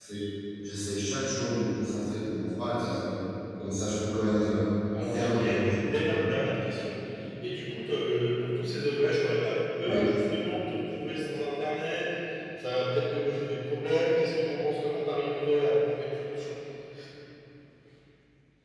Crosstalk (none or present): present